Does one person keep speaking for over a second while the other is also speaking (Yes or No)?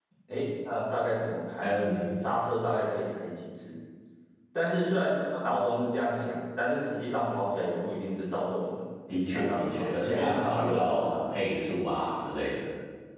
Yes